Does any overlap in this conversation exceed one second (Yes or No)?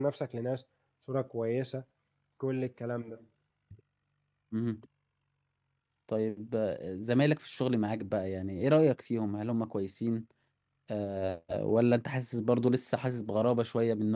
No